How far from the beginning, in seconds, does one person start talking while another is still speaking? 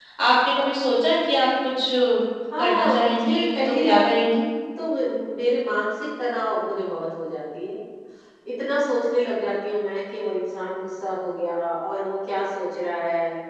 2.6 s

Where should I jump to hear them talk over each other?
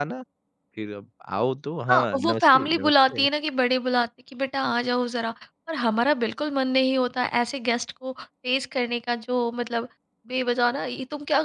1.9 s

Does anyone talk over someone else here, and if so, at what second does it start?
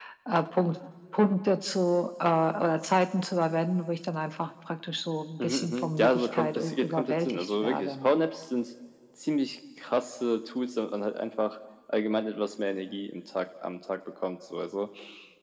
5.4 s

